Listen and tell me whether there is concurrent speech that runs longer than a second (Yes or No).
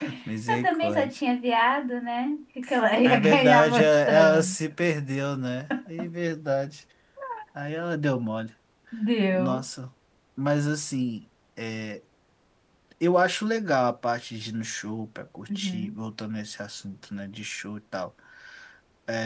Yes